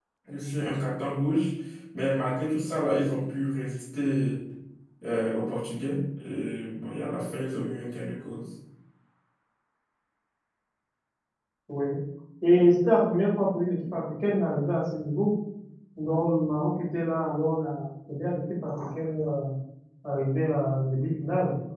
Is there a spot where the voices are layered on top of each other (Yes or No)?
No